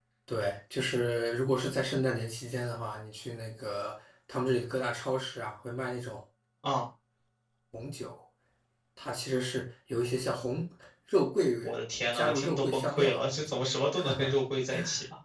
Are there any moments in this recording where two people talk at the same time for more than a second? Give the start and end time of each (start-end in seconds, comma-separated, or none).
12.1-13.6